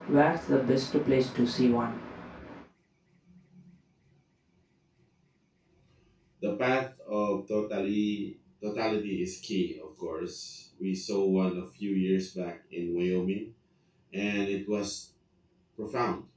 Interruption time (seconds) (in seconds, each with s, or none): none